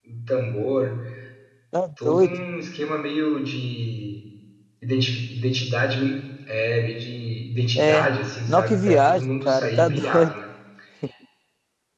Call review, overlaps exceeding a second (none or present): present